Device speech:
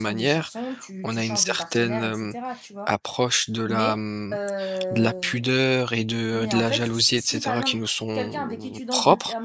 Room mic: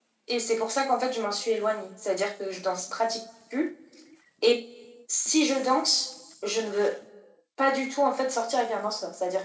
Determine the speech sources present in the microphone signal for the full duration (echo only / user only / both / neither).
user only